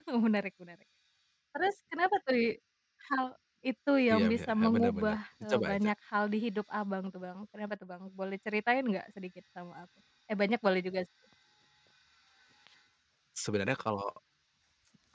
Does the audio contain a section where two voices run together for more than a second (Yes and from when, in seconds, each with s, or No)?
Yes, from 4.1 s